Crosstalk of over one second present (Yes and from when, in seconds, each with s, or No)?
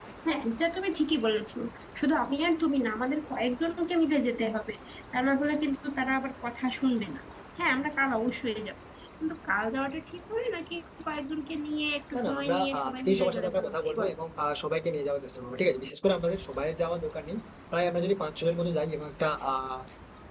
Yes, from 12.1 s